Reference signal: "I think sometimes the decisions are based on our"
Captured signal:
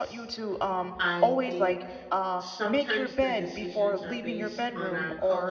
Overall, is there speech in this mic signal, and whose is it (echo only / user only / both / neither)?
both